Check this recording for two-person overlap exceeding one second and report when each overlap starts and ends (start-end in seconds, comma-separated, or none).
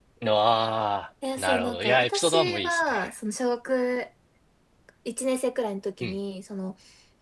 1.4-3.1